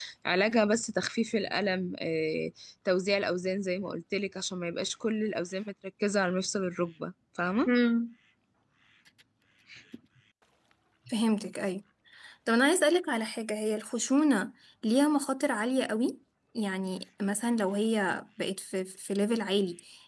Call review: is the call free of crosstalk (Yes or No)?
Yes